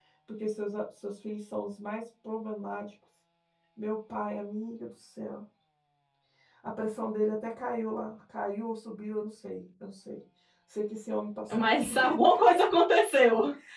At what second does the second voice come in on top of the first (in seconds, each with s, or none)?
none